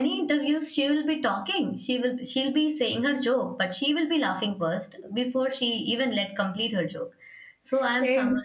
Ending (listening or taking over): listening